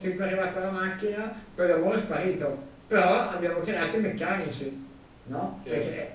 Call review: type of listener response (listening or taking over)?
taking over